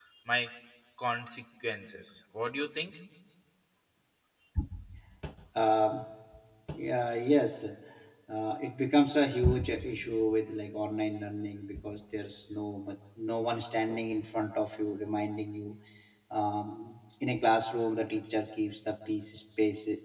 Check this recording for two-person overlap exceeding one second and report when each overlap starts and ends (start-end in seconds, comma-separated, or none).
none